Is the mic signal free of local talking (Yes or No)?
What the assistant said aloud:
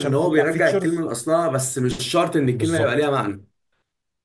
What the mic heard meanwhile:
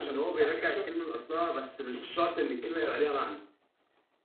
Yes